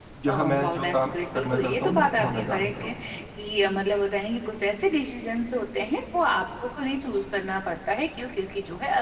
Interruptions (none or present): present